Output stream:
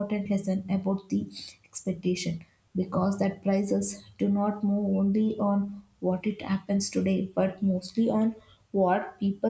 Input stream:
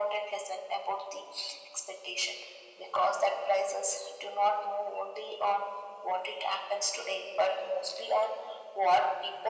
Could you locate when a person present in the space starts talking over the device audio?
none

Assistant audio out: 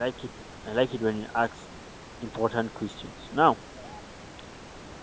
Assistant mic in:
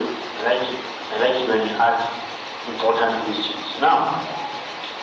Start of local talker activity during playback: none

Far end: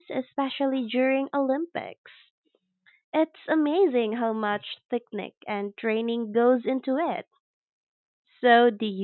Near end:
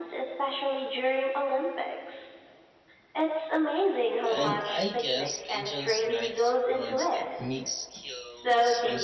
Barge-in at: 4.3 s

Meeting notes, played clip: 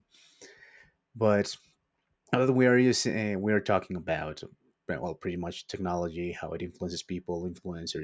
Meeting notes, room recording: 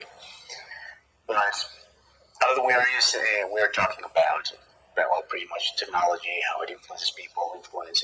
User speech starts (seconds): none

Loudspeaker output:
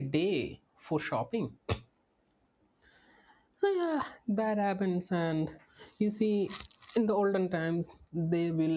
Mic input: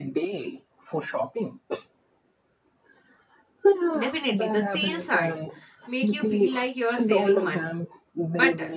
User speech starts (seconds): 4.0 s

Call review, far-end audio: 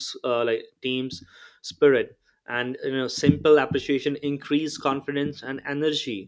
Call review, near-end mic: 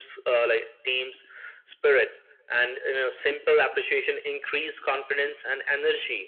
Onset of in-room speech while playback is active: none

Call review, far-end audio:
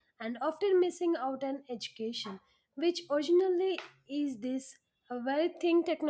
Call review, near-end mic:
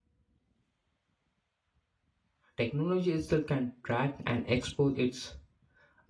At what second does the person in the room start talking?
2.6 s

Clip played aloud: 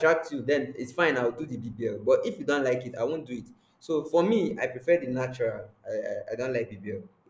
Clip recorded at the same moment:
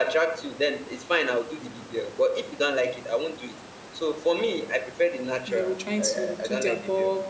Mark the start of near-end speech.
5.5 s

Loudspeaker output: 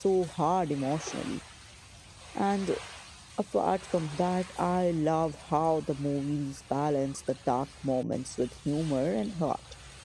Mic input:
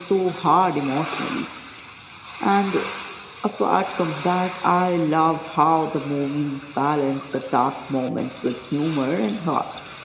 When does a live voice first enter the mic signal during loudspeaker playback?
none

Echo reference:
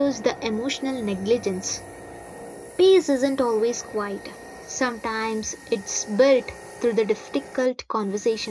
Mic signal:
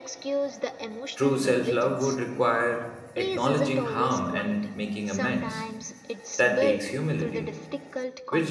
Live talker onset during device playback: 1.1 s

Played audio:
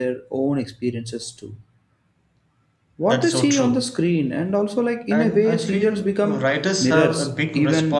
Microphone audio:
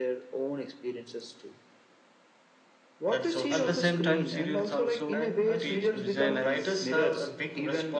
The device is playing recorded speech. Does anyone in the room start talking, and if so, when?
3.5 s

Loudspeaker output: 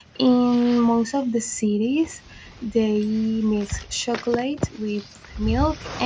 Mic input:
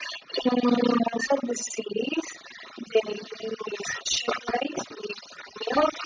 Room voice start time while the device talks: none

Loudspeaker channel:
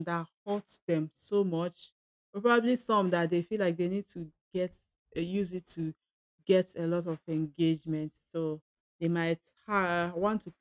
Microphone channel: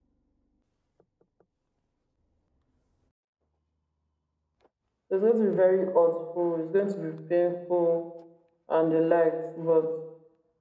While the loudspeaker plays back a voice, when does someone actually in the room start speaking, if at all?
5.1 s

